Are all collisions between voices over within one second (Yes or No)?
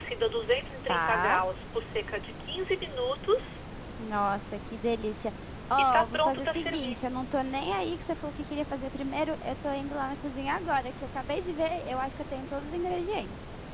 No